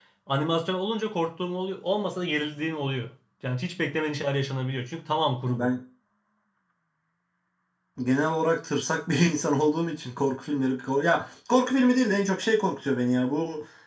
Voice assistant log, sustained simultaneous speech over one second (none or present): none